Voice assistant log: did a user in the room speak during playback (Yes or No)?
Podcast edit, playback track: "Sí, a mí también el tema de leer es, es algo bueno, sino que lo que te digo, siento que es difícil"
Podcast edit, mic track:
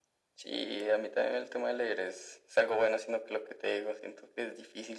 No